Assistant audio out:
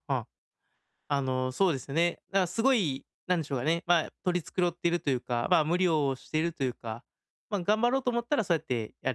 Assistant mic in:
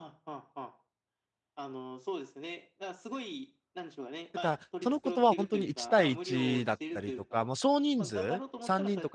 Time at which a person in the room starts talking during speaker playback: 4.3 s

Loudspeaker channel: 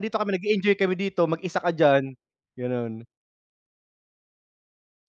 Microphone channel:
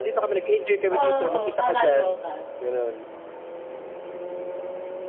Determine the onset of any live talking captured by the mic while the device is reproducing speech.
0.9 s

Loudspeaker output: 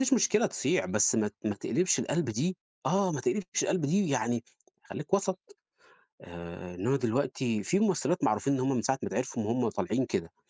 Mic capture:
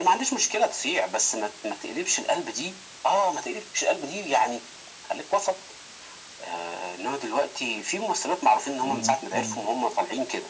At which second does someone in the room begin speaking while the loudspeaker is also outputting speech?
8.8 s

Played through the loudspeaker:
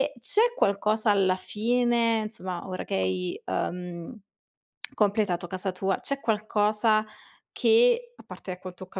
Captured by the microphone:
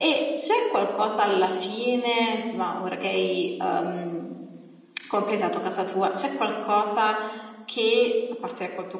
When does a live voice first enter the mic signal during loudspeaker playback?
none

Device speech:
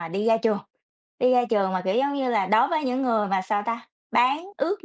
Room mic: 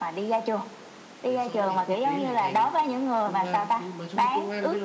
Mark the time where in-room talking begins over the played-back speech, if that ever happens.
1.2 s

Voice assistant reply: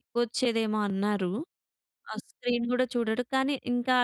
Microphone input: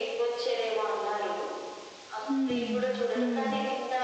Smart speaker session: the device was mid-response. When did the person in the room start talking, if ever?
2.3 s

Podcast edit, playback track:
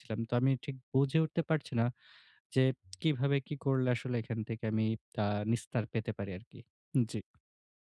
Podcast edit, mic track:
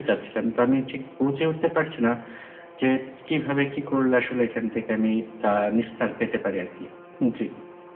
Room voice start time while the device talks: none

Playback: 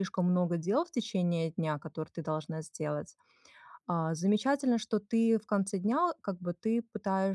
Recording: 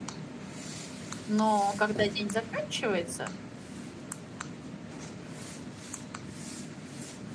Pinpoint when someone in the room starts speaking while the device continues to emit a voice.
1.3 s

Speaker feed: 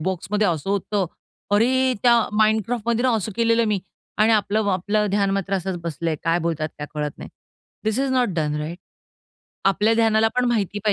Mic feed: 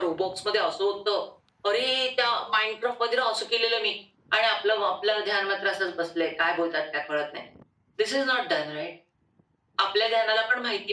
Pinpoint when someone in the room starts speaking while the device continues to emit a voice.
none

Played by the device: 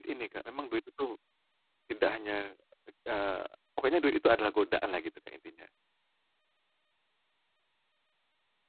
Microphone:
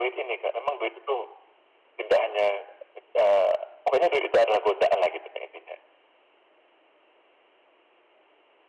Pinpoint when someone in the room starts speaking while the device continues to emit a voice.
none

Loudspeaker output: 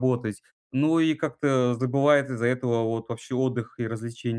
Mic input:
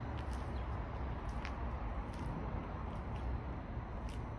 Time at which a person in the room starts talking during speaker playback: none

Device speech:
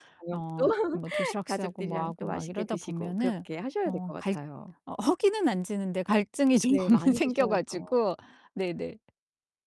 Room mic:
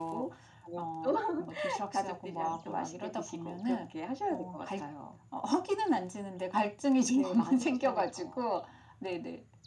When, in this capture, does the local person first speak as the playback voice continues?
none

